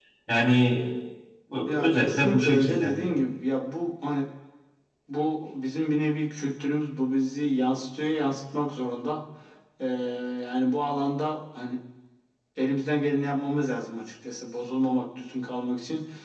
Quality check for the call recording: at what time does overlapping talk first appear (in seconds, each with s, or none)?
1.6 s